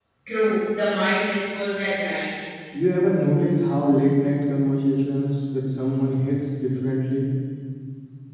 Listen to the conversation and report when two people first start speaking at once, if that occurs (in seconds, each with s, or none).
none